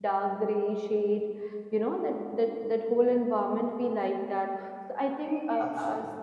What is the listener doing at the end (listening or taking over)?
listening